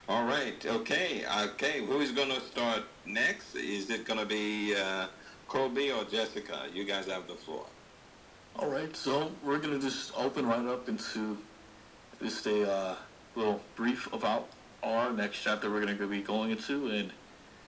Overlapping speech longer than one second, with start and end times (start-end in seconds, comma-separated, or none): none